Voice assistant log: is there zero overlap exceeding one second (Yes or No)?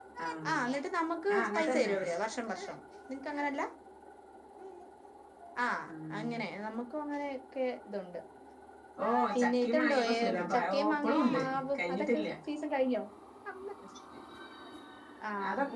No